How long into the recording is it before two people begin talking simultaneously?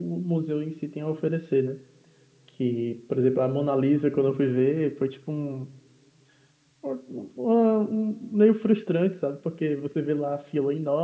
none

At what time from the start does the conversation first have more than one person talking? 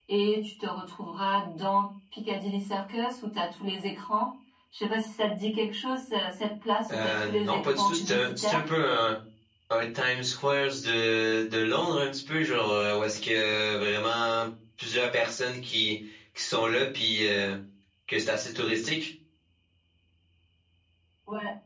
6.9 s

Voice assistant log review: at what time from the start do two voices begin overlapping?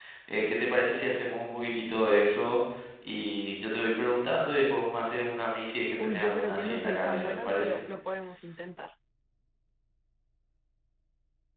6.0 s

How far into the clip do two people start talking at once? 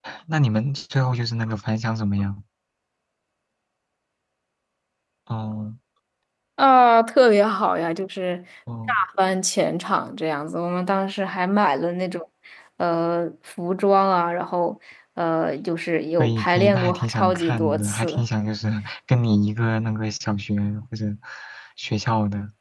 16.2 s

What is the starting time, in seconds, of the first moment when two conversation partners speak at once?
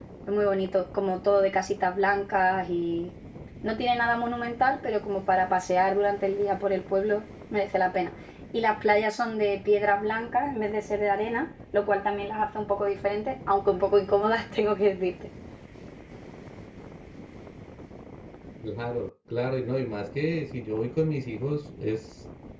none

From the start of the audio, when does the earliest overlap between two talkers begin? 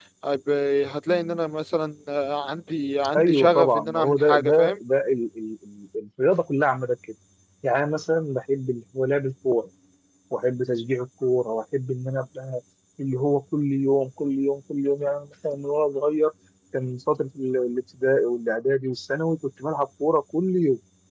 3.1 s

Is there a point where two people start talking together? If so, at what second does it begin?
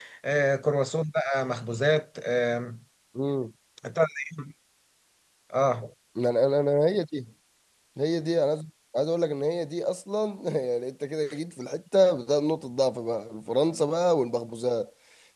none

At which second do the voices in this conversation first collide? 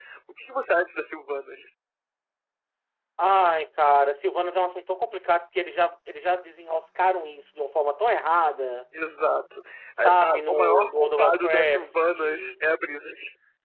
10.0 s

